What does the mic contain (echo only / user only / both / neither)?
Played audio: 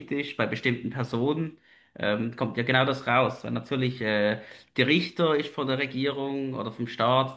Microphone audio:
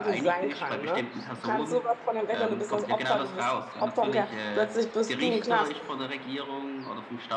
both